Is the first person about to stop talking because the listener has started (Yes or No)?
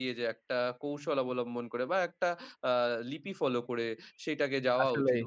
No